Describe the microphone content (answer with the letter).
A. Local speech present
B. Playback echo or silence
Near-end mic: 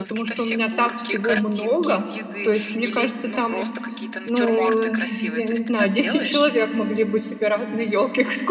A